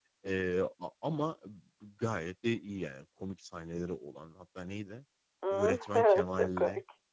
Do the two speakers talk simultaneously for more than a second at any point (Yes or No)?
Yes